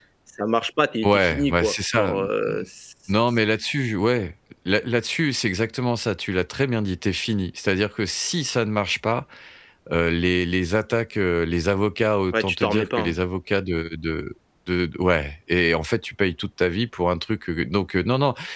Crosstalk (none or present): present